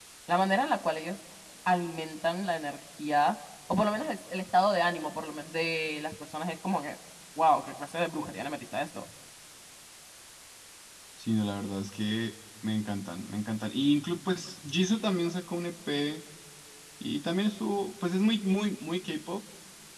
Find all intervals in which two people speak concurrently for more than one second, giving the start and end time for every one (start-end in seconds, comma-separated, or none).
none